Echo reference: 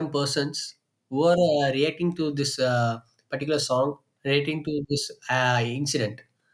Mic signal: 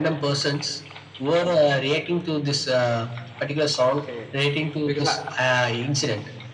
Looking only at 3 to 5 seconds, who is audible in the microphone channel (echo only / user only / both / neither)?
both